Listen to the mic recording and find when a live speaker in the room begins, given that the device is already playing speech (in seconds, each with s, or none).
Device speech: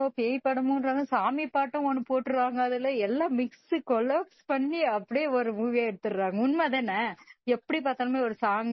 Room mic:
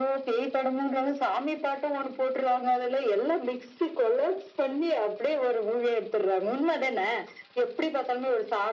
none